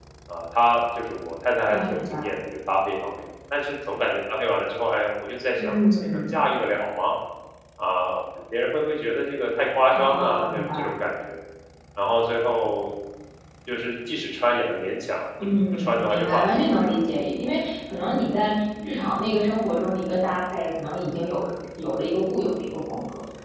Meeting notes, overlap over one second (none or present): present